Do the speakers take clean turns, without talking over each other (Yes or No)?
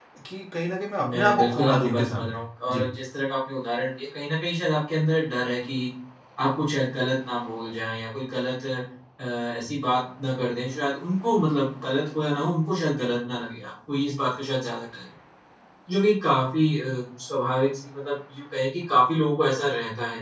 No